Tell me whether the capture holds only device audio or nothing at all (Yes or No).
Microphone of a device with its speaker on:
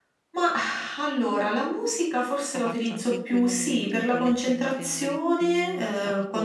No